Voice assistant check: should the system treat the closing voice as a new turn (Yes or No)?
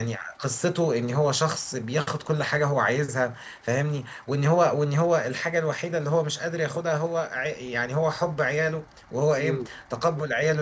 No